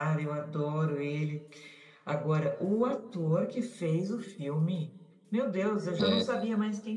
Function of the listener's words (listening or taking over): listening